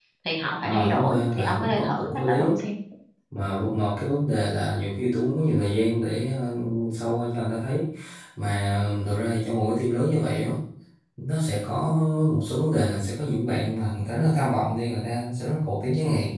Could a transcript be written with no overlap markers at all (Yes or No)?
No